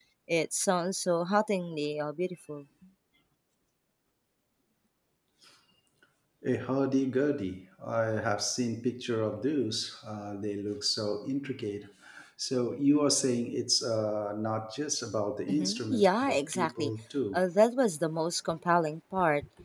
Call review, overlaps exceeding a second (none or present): present